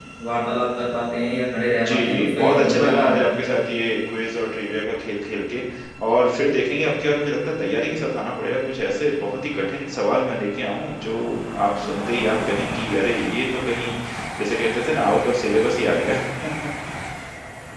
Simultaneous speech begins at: 1.8 s

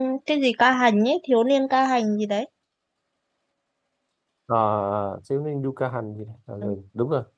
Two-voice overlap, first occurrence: none

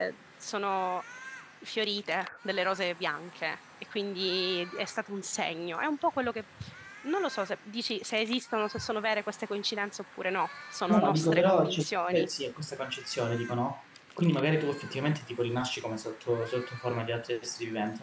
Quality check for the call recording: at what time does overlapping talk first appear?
10.9 s

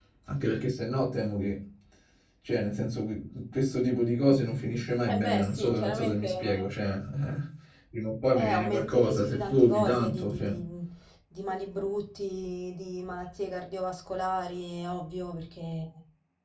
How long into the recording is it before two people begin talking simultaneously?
5.1 s

